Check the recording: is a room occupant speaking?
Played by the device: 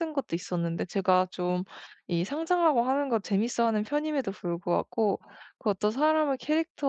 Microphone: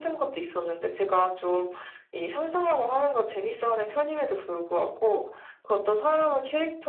No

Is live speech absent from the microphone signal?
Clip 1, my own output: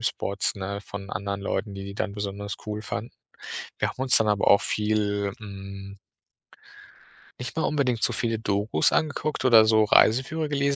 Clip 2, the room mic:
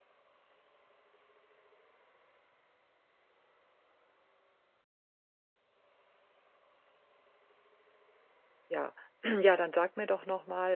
No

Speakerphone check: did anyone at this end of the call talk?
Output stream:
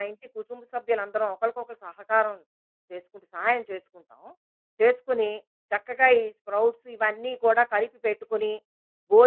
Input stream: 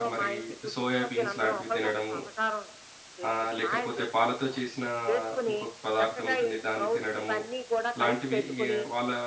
Yes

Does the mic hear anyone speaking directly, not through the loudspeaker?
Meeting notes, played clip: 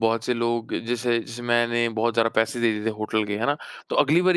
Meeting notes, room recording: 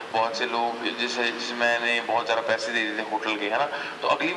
No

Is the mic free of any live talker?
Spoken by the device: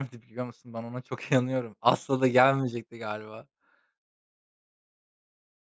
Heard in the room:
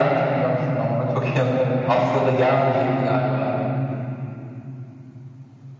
Yes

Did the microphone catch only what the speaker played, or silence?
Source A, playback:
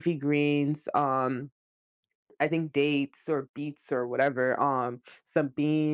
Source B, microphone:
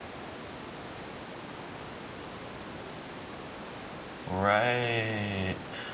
No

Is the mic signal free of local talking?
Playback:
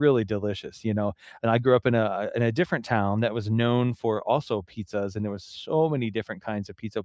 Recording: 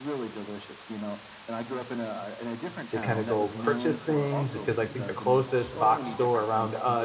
No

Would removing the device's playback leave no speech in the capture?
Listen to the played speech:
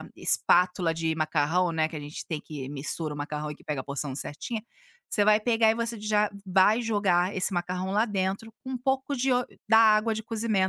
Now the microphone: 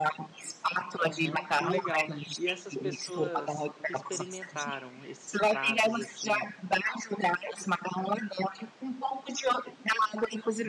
No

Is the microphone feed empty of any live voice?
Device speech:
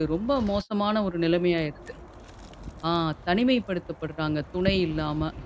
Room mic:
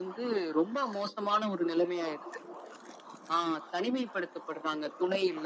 Yes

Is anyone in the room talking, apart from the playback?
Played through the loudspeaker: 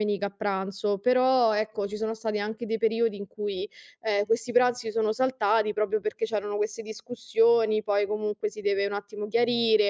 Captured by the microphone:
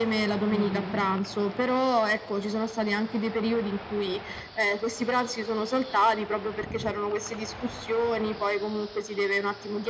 Yes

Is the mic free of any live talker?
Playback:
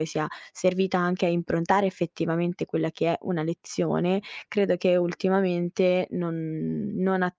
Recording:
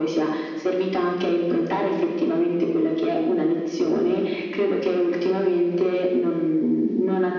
Yes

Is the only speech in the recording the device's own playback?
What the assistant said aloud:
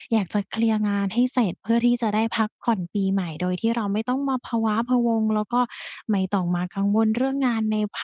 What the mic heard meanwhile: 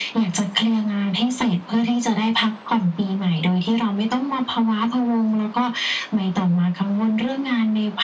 Yes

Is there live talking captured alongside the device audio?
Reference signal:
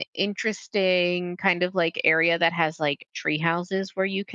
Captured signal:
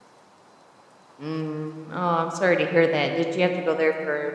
Yes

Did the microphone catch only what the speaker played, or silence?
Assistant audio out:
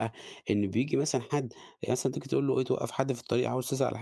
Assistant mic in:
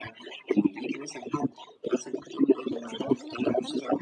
No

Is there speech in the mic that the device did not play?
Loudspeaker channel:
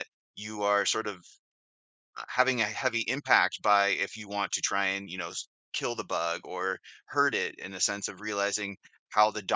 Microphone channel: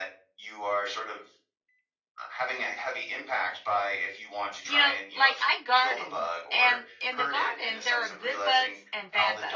Yes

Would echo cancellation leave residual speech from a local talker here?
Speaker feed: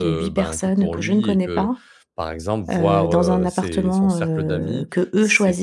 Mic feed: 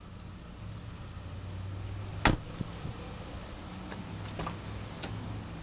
No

